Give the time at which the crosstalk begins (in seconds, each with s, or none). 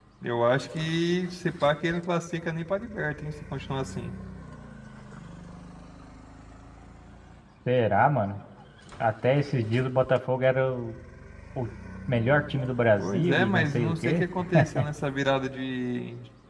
13.0 s